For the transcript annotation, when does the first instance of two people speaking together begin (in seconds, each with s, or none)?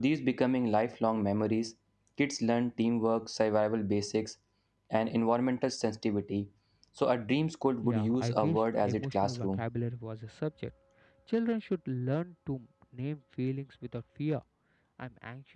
7.8 s